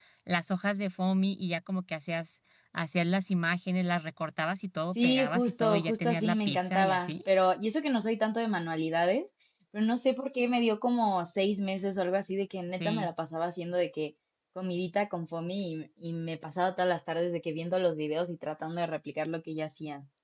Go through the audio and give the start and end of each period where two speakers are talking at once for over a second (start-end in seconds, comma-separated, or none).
5.0-7.2